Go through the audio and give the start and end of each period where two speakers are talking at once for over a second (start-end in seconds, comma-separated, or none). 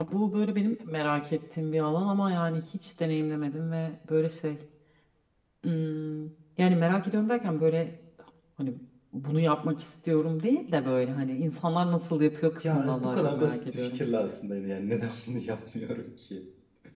12.7-14.0